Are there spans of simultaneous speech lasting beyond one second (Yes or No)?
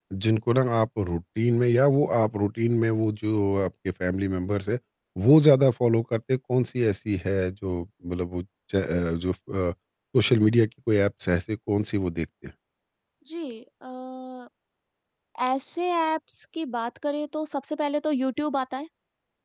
No